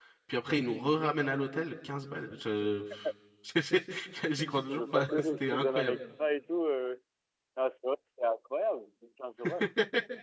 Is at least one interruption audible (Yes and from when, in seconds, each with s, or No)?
Yes, from 4.7 s